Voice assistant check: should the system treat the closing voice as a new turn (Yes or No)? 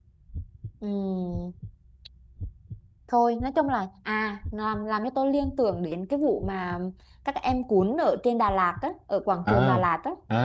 Yes